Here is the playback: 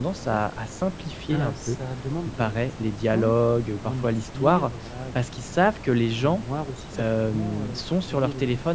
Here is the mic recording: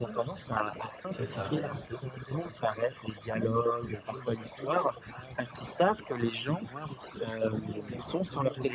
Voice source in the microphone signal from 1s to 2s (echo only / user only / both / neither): both